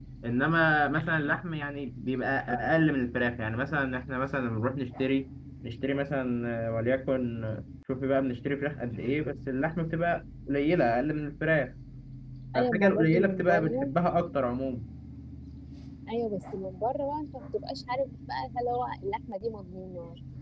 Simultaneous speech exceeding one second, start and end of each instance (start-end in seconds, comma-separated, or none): 12.6-13.9